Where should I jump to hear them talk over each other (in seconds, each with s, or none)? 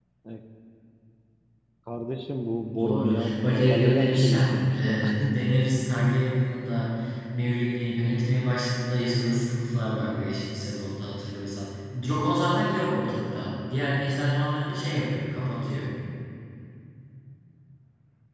2.8 s